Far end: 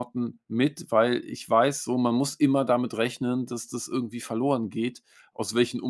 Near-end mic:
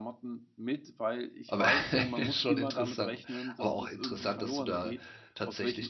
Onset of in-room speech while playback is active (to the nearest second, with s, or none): 1 s